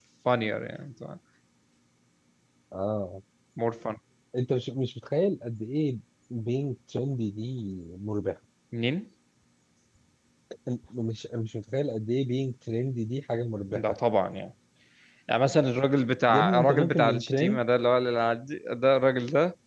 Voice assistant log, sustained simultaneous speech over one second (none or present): present